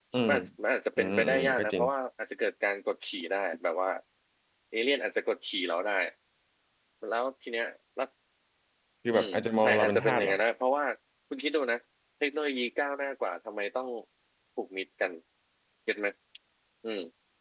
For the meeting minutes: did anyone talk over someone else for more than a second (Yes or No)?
Yes